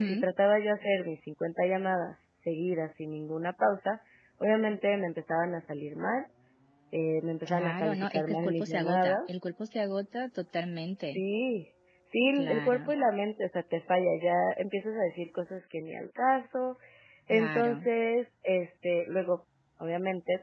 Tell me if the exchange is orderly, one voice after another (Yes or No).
No